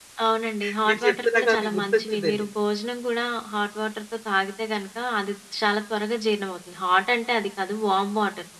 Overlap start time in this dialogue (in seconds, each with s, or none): 0.9 s